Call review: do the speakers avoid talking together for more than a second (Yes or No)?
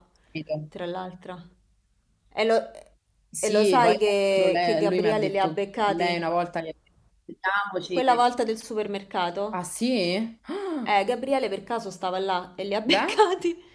No